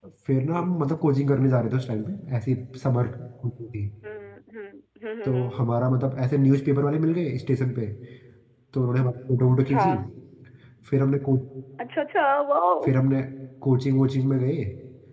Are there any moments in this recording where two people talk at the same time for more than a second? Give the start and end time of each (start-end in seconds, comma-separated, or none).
none